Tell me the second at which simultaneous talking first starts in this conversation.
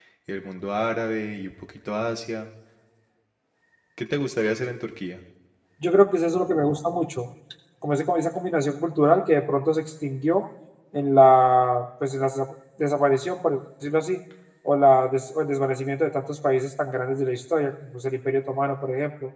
none

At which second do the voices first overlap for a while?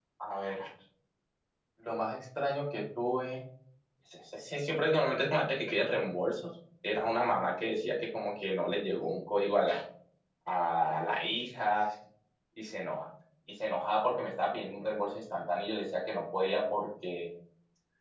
none

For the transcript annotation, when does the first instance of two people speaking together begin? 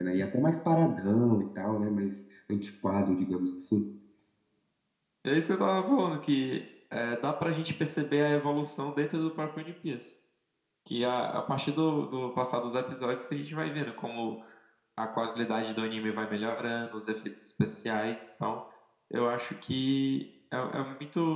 none

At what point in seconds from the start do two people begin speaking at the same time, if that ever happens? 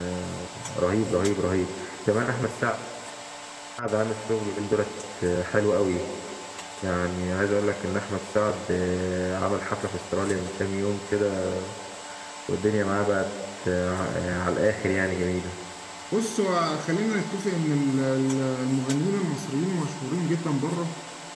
none

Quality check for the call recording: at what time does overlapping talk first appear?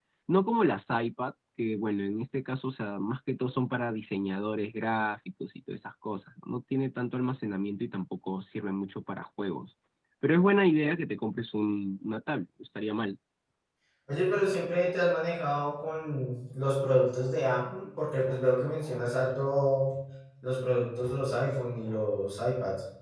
none

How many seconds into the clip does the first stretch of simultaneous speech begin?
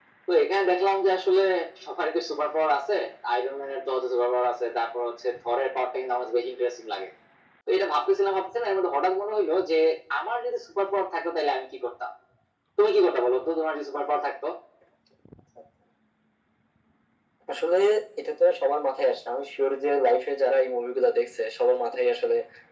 none

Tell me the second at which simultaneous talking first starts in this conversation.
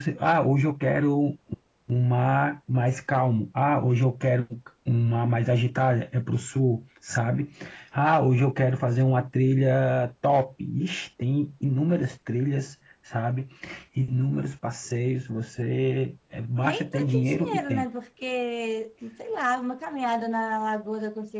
16.6 s

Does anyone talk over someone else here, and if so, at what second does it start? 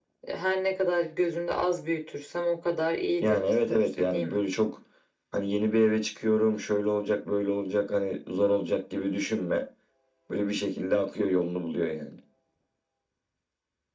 3.2 s

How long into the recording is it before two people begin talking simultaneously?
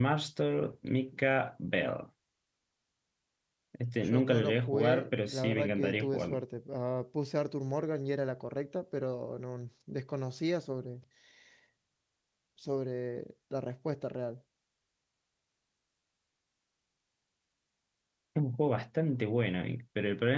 4.0 s

